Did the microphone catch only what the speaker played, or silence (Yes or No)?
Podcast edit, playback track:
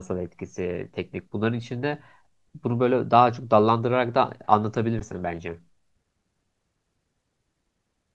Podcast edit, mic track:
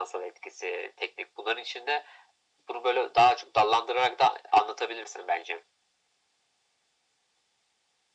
Yes